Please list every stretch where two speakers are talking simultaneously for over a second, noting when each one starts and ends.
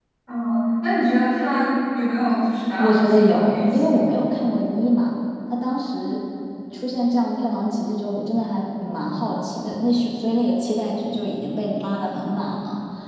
2.8-4.1

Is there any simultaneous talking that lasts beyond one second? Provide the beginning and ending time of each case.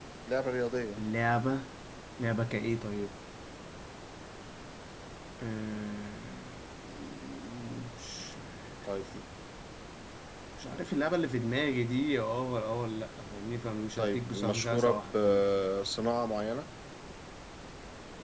14.0-15.4

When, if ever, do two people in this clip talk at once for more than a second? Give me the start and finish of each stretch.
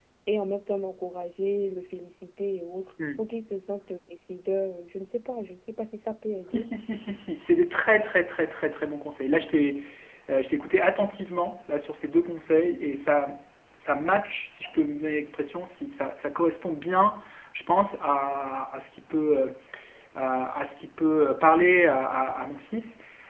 none

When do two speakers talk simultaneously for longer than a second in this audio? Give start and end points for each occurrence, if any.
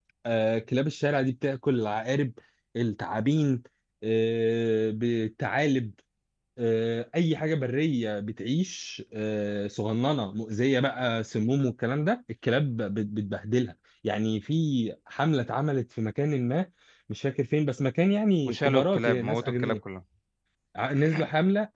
18.4-19.8

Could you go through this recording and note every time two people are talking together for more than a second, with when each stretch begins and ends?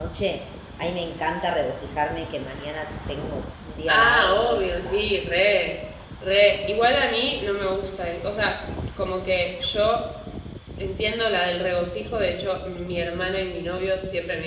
3.9-5.1

